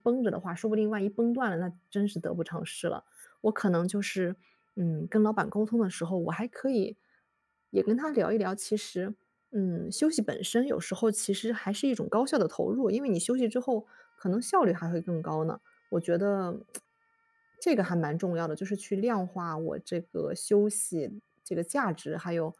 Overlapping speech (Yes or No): No